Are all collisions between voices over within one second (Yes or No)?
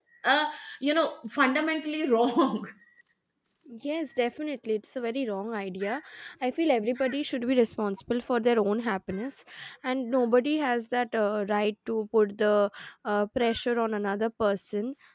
Yes